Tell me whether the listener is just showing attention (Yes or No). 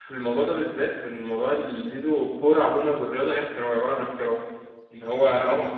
Yes